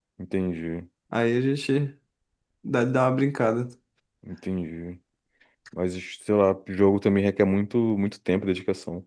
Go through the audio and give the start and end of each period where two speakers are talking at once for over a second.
none

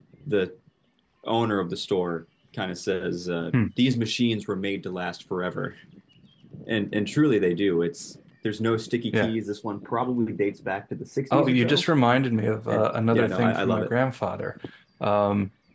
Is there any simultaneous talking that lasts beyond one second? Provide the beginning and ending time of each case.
12.7-13.9

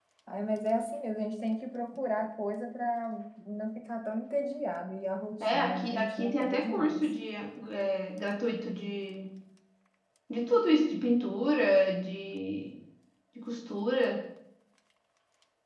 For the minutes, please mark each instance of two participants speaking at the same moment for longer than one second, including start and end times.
5.5-7.0

